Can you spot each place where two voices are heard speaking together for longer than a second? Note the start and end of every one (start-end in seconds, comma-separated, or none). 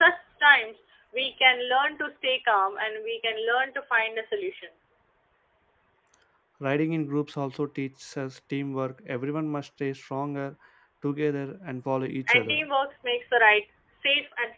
none